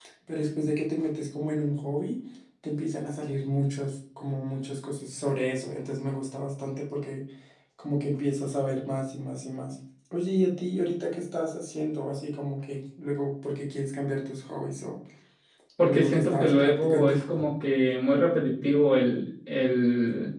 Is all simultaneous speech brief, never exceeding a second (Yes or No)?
No